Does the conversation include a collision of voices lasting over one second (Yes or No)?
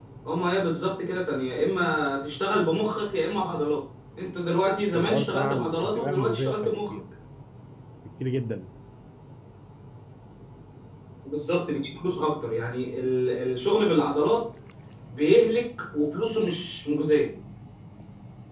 Yes